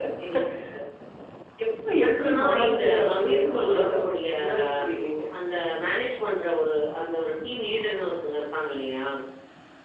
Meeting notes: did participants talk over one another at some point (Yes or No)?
Yes